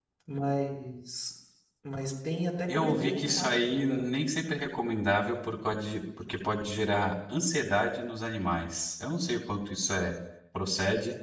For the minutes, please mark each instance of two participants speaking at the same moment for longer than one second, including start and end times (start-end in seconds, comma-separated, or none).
2.7-4.0